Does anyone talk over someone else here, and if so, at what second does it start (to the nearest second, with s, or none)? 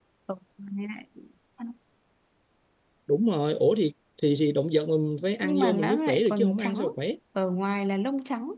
5 s